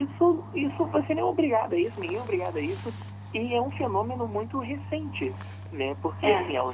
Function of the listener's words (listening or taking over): listening